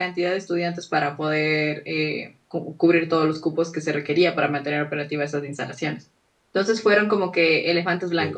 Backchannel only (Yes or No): Yes